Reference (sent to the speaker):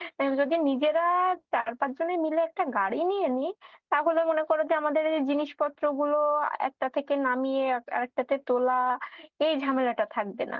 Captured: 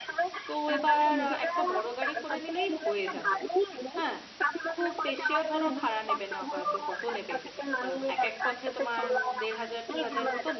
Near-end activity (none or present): present